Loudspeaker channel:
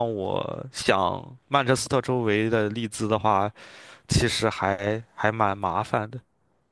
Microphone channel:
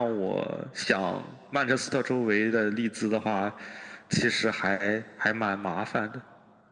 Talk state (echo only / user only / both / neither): echo only